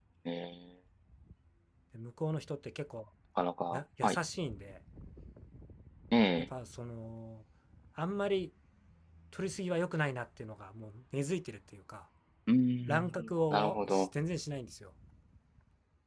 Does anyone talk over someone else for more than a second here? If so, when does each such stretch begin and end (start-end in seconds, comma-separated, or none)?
12.9-14.1